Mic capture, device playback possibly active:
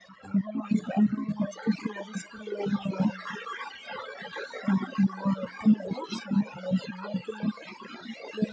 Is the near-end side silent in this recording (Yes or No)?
Yes